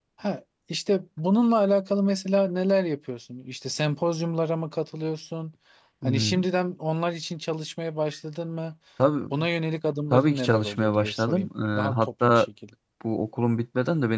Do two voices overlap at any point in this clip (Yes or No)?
Yes